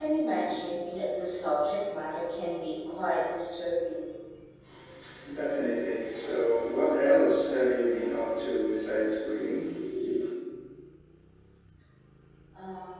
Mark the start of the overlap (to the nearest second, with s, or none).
none